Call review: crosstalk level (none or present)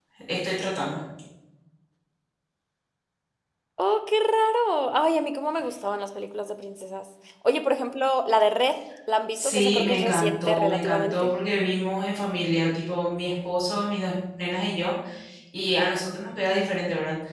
present